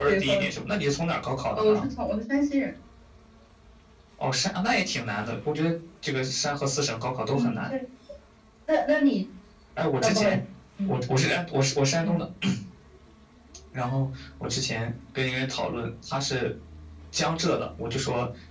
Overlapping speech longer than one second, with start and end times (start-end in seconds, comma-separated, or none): none